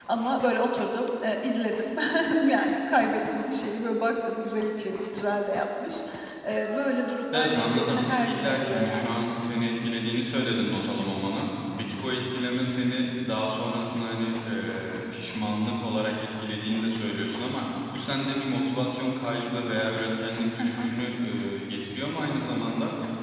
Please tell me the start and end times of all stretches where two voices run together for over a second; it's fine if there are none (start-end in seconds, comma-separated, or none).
7.3-9.1